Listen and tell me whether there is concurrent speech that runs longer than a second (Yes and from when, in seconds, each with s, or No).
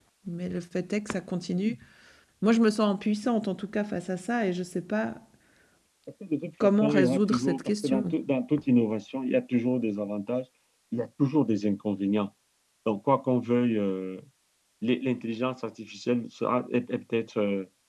Yes, from 6.6 s